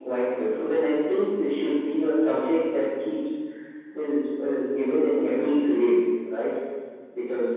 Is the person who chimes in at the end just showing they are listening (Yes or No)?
Yes